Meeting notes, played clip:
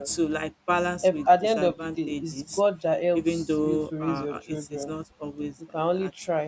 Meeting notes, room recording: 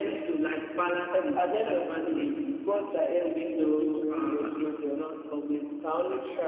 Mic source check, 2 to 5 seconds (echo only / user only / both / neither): echo only